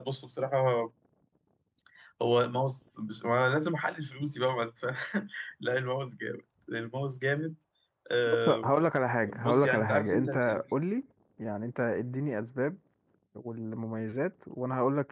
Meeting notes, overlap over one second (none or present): present